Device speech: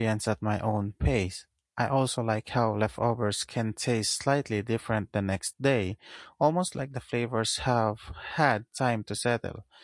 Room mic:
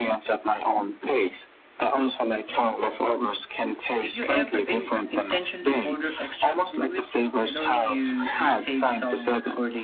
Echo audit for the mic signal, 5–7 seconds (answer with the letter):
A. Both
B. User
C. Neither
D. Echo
A